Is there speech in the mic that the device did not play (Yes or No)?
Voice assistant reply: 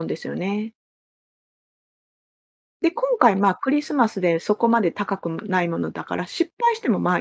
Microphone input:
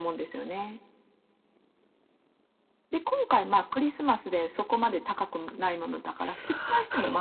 Yes